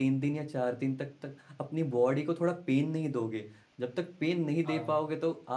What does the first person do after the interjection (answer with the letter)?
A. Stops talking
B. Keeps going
B